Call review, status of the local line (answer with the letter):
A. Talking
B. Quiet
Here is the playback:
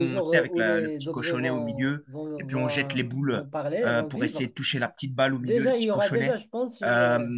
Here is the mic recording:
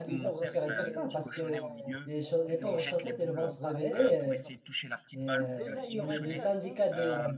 A